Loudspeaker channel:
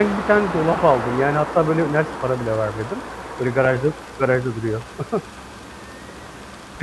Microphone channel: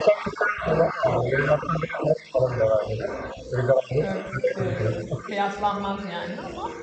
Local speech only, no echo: ört eee, kıyaslanmaz yani ama

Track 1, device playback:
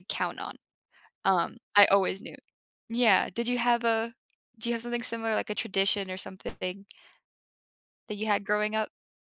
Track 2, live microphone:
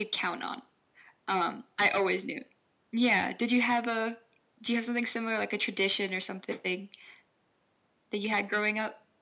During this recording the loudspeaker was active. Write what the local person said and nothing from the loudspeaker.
none

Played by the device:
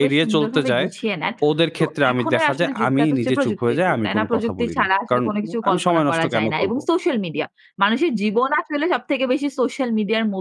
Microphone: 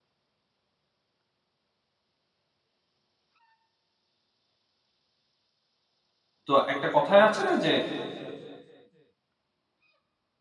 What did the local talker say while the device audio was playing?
তো একটা কথায় আছে না যে,

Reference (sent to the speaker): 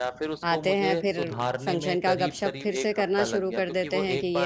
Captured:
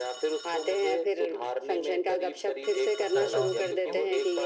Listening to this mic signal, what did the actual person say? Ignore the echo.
करता हूँ कि इसको

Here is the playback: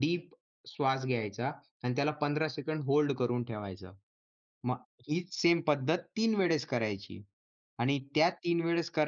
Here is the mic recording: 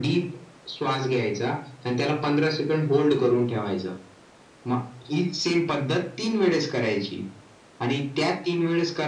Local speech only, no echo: none

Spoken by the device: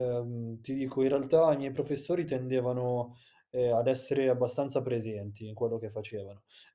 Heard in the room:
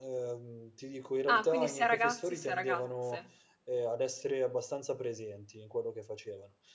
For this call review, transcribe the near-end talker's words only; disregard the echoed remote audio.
Ah, quindi sia ragazzi sia ragazze.

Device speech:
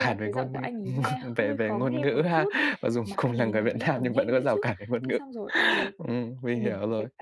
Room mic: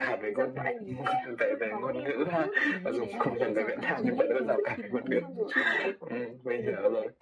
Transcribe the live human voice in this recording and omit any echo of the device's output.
mình nghĩ đấy là một cái rào cản duy nhất thôi khi mà bọn mình nói chuyện.

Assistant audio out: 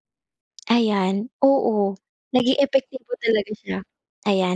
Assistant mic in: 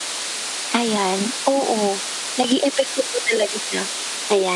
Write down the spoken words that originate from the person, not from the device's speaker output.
none

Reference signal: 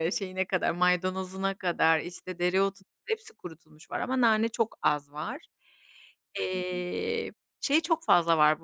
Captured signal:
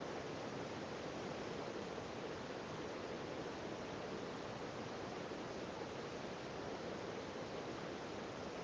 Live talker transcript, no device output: none

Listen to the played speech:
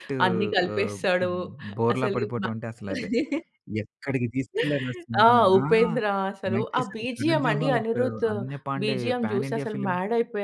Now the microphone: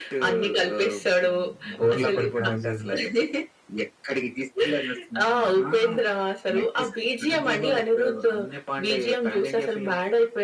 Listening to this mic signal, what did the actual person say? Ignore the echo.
లోకేష్ కనకరాజు.

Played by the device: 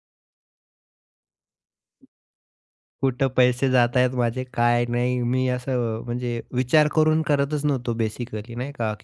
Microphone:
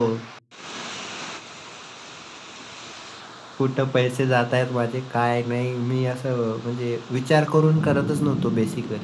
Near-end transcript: none

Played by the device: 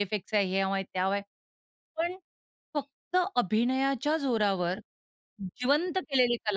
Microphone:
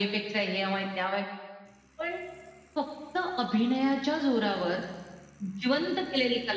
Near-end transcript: none

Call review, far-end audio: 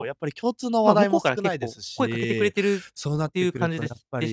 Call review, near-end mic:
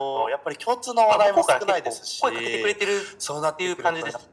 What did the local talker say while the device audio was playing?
none

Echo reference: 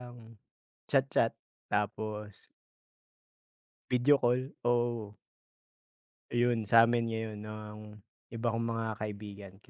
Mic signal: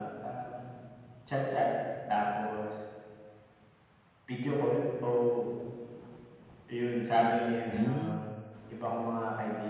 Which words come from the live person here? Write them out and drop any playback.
Hmm.

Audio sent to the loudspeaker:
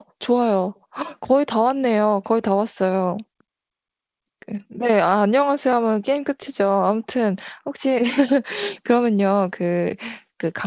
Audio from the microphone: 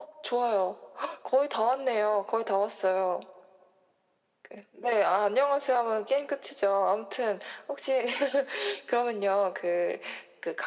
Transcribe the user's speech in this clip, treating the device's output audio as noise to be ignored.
none

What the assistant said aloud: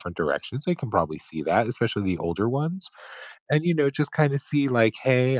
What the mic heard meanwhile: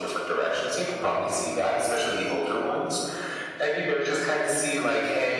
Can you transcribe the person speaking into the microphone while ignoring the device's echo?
none

